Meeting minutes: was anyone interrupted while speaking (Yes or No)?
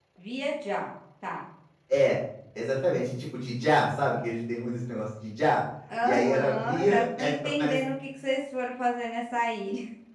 Yes